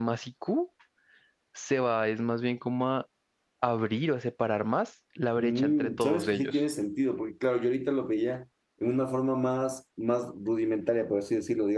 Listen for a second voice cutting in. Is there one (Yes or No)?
Yes